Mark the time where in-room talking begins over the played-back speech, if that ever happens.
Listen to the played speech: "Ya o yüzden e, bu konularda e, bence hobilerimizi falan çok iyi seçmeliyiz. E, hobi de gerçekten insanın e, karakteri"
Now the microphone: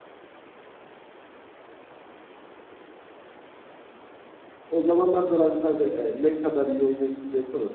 5 s

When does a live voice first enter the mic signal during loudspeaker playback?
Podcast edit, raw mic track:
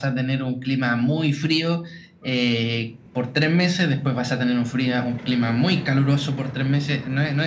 none

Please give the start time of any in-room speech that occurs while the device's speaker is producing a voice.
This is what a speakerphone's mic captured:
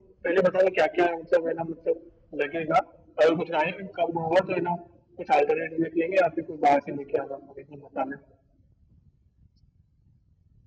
none

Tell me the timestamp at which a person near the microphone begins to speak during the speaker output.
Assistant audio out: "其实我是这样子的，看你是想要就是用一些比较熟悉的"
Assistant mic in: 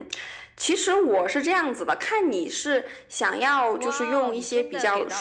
4 s

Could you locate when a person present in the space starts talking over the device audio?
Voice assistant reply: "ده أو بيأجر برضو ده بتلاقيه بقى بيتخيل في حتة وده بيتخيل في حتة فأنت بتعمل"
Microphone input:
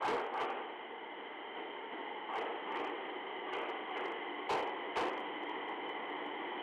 none

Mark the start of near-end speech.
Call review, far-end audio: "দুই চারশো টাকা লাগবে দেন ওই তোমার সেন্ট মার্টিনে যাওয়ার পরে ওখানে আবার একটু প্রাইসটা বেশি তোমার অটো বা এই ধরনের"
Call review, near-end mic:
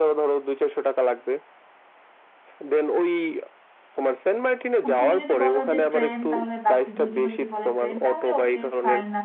5 s

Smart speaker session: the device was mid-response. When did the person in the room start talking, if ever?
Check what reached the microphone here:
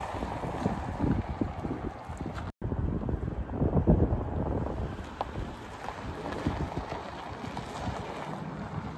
none

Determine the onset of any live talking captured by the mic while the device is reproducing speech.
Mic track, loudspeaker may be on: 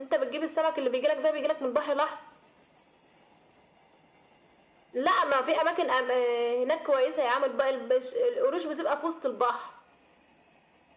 none

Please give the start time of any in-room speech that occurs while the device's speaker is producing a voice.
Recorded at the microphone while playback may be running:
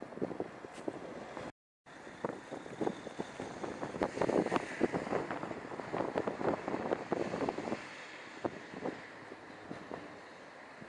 none

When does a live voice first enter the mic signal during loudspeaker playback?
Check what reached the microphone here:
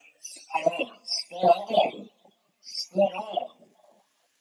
none

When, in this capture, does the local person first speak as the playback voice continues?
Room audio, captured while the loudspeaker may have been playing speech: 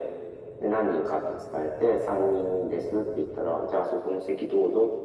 none

